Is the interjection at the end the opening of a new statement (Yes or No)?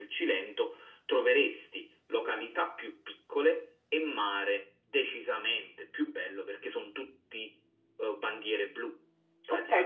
Yes